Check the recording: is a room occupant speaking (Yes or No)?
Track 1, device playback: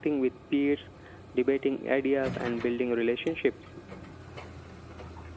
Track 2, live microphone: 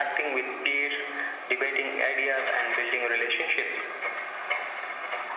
No